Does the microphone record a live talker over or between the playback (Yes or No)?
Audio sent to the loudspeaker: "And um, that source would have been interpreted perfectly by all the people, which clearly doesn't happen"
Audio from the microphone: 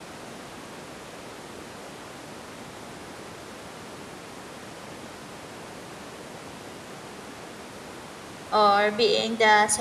Yes